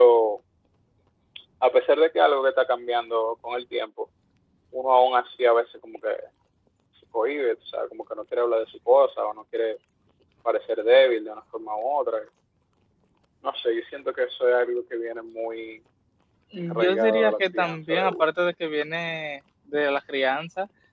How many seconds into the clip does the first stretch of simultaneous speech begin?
16.6 s

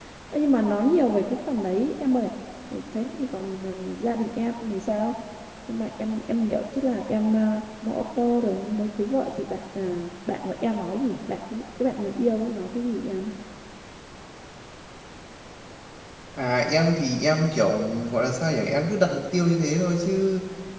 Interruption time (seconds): none

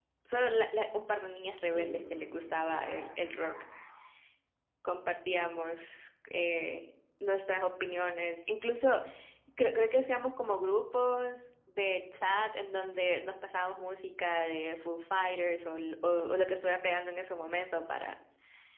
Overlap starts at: 1.7 s

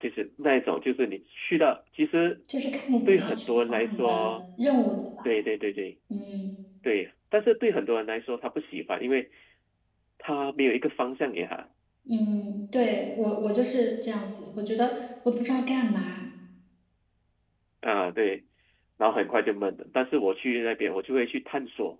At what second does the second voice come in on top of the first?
3.1 s

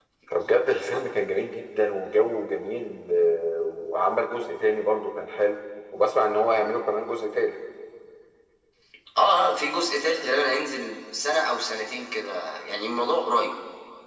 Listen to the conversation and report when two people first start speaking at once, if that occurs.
none

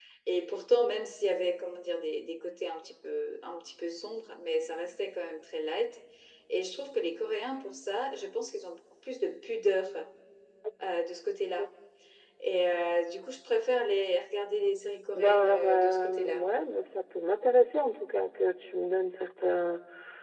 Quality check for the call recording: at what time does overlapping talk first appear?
15.1 s

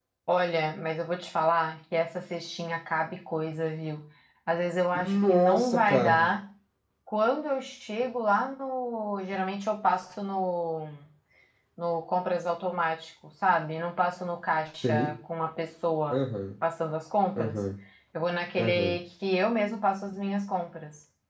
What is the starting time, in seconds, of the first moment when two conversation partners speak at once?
5.0 s

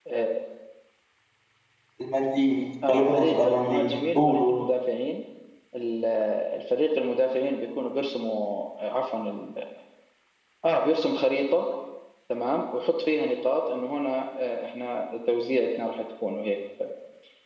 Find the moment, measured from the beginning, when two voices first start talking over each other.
2.9 s

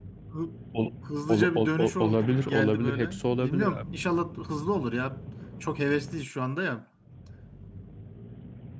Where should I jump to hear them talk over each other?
1.3 s

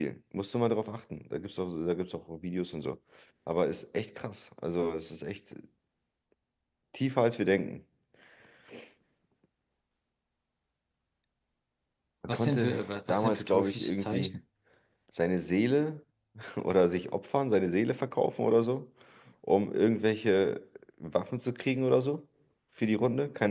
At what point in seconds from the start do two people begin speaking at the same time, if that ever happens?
12.3 s

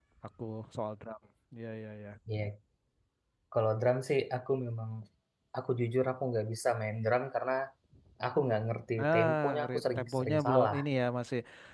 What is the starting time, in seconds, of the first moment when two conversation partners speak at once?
9.0 s

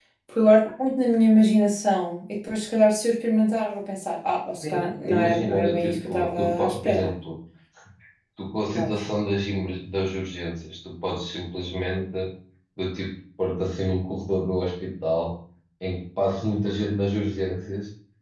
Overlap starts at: 4.6 s

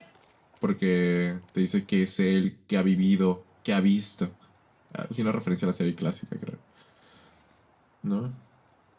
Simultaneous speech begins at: none

